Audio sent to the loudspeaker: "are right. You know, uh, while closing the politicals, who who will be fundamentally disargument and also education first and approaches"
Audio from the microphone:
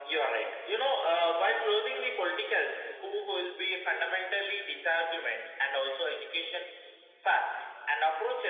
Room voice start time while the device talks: none

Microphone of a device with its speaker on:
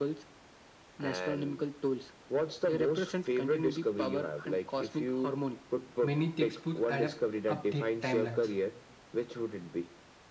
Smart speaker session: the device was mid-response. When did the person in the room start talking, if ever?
6 s

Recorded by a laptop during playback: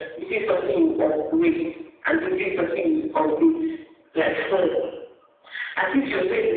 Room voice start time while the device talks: none

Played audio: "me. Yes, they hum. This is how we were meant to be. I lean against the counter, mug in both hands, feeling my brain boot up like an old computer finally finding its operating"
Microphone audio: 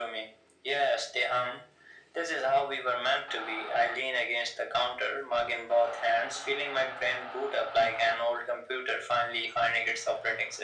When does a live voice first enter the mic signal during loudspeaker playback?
none

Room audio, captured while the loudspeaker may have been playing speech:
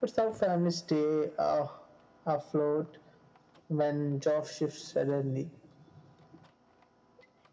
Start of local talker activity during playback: none

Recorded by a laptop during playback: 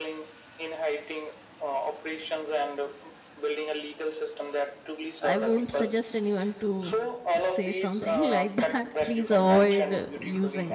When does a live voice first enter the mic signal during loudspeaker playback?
5 s

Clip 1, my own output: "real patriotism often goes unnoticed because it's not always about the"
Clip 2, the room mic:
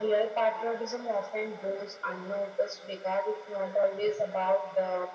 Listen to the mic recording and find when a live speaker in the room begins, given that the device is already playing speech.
none

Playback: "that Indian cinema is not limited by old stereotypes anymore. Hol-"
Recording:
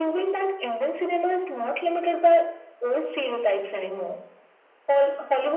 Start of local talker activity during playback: none

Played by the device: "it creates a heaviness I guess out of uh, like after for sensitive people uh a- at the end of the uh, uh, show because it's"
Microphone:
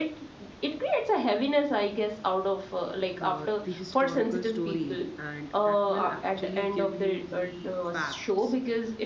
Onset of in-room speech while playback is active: 3 s

